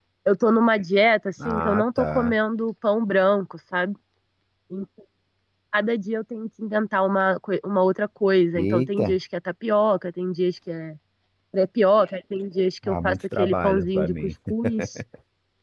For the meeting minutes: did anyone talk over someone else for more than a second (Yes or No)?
Yes